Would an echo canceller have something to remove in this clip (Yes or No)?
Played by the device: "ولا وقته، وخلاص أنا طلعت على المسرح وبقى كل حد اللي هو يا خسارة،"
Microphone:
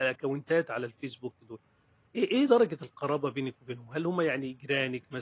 No